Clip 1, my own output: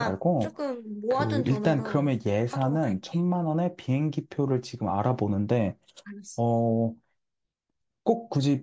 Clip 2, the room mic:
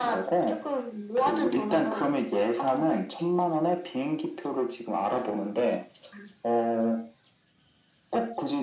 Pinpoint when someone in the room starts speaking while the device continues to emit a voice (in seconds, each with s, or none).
none